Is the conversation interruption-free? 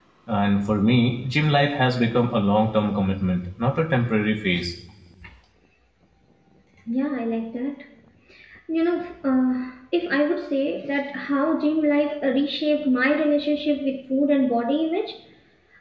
Yes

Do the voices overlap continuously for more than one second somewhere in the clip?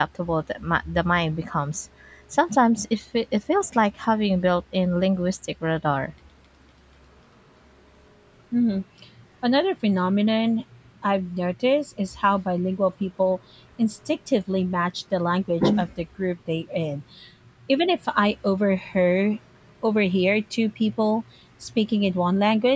No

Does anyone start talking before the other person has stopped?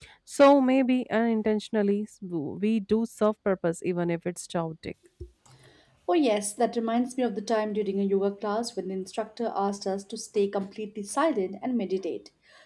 No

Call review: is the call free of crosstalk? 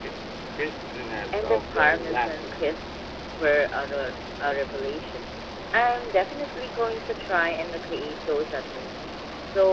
No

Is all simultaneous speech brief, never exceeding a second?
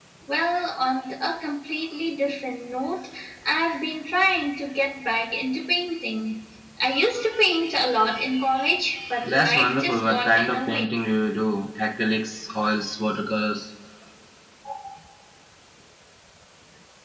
No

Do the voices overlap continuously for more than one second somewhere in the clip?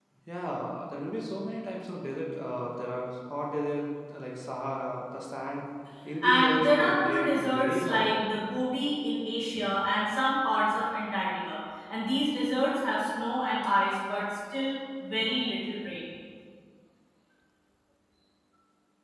Yes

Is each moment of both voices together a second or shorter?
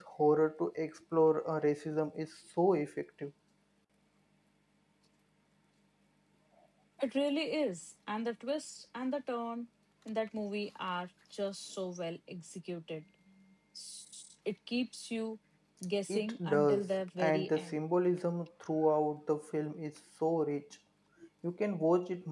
No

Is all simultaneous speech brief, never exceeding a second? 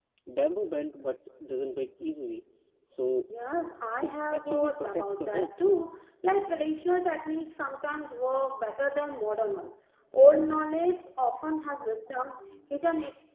No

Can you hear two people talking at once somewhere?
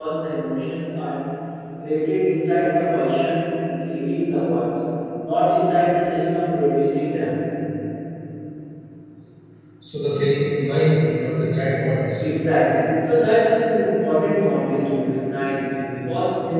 No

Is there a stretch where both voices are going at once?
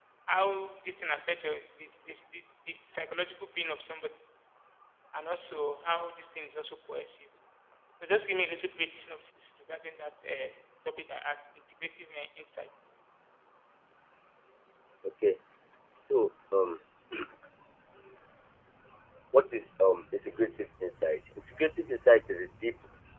No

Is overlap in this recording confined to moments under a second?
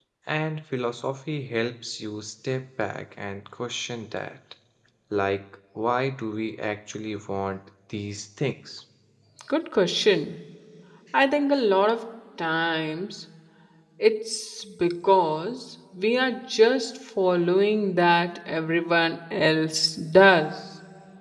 Yes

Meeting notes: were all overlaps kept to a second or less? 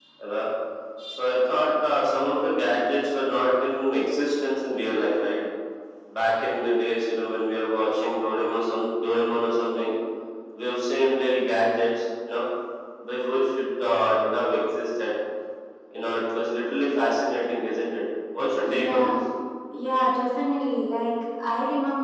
Yes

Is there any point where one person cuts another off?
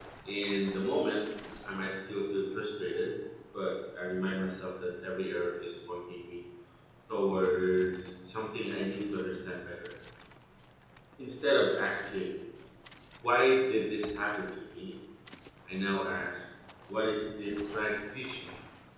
No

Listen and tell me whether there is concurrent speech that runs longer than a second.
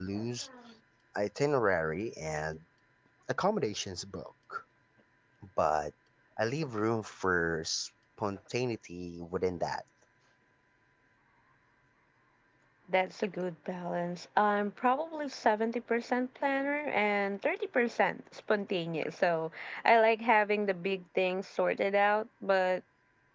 No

